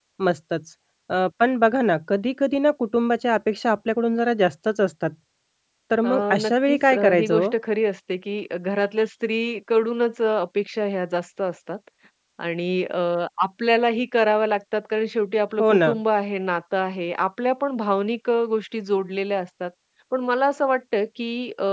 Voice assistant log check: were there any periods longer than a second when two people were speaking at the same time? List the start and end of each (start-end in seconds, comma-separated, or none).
6.0-7.5